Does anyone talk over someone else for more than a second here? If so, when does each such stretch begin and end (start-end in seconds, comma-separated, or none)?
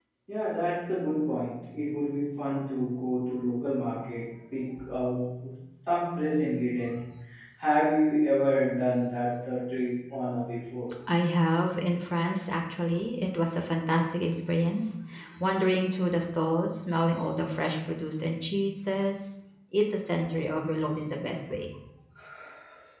none